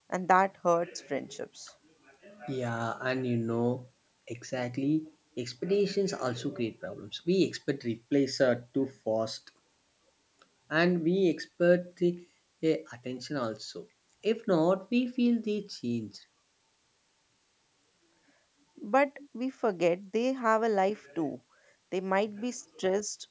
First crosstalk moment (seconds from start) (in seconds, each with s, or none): none